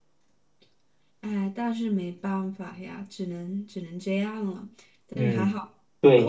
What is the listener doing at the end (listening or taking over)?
taking over